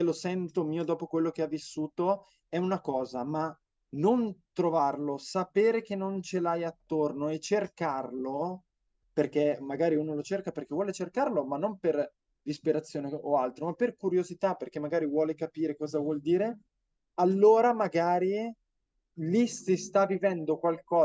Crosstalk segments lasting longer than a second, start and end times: none

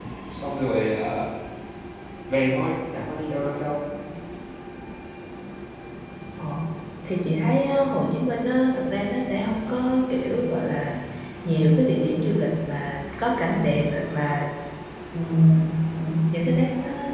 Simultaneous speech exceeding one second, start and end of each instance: none

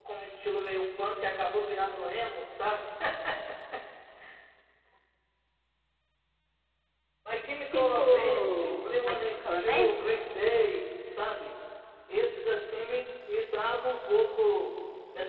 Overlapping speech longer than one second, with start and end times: 7.6-10.0

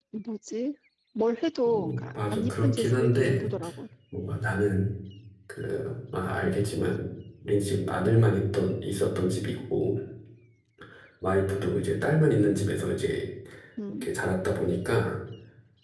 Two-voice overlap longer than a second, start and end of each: 1.7-3.4

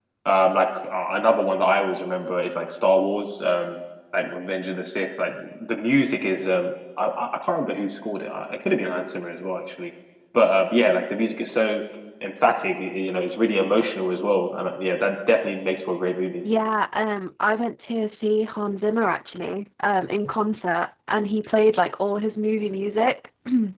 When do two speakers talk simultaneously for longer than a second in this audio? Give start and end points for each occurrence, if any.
none

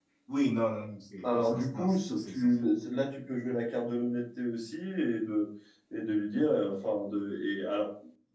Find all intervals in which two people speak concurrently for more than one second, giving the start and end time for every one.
1.2-2.5

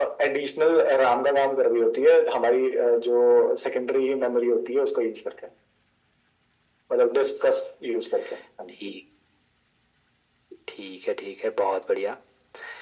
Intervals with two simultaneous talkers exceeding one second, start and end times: none

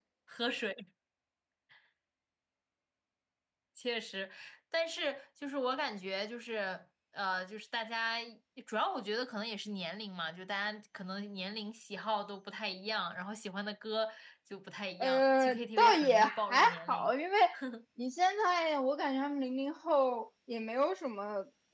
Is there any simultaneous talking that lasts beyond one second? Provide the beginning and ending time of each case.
15.0-17.1

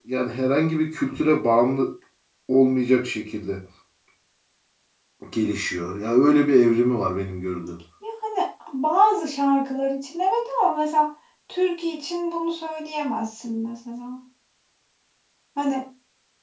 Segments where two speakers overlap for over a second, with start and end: none

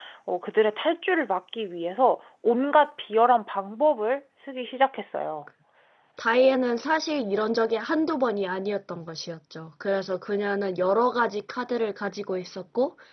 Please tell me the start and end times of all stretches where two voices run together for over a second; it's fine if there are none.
none

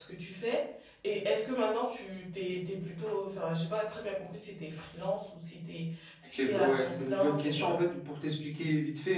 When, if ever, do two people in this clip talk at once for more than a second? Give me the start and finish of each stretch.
6.3-7.8

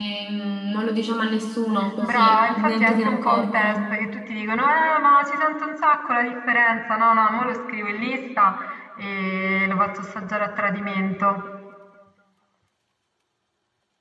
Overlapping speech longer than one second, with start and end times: 2.0-3.8

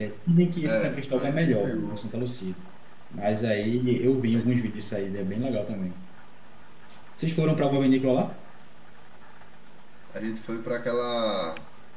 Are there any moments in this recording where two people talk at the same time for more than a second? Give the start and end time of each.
0.6-2.0

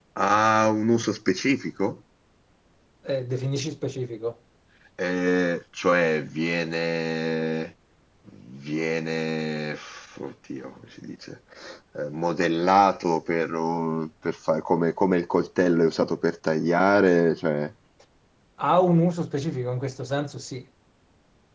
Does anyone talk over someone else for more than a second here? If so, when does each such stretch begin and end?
none

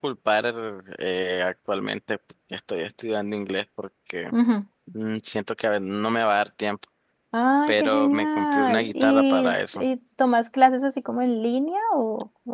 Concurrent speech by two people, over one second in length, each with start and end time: 7.7-9.8

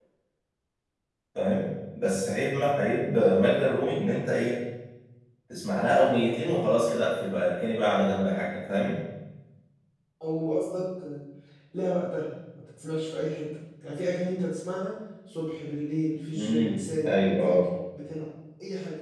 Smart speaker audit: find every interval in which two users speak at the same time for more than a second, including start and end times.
16.4-17.7

